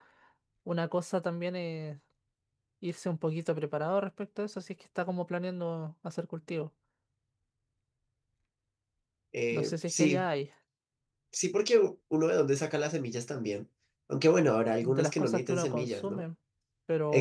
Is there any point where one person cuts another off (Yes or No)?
Yes